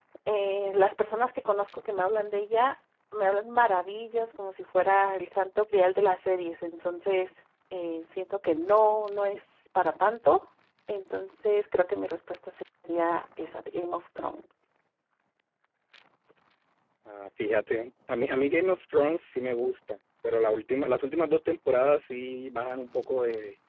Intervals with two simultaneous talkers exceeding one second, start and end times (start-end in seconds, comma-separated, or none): none